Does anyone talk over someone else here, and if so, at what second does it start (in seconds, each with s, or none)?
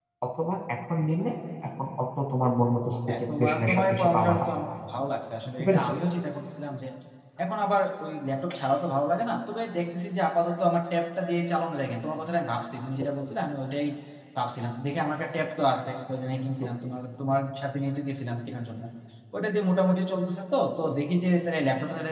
3.1 s